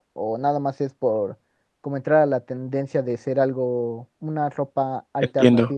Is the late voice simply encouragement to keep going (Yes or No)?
No